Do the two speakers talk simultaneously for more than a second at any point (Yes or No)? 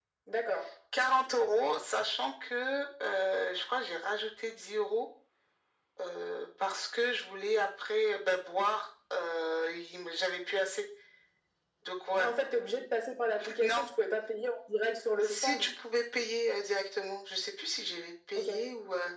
No